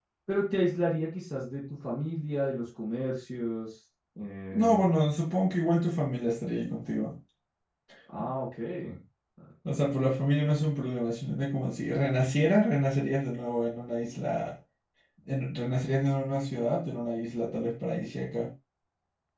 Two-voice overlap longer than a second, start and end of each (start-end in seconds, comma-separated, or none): none